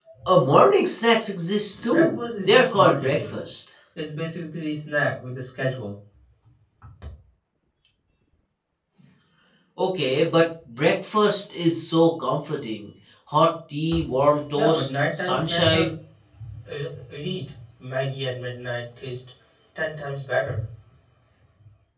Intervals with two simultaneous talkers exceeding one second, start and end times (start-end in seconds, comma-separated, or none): 1.8-3.3, 14.6-15.9